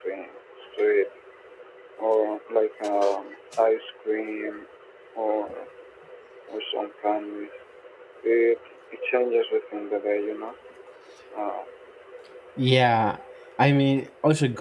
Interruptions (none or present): none